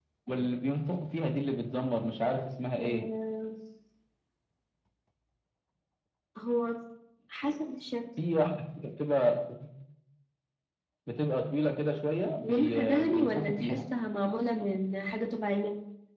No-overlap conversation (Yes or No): No